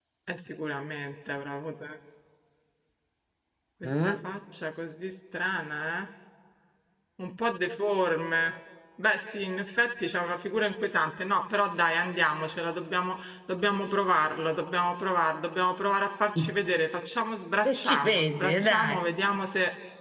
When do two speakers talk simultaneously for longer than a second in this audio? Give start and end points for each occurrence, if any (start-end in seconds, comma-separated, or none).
17.6-19.0